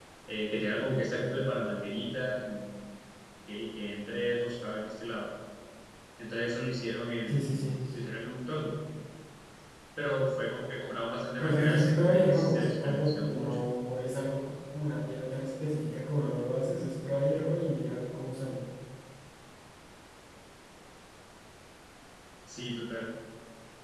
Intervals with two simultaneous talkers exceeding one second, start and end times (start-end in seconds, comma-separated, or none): 11.4-13.6